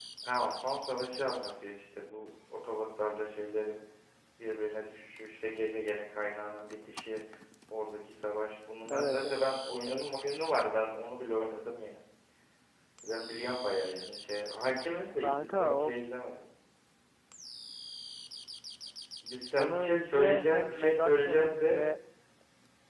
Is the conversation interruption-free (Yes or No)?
No